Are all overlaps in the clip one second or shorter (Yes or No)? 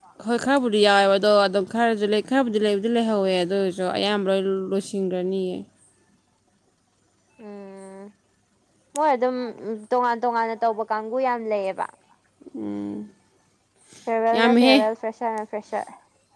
Yes